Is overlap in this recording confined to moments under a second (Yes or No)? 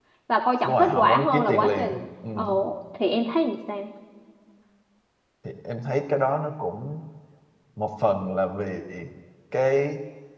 No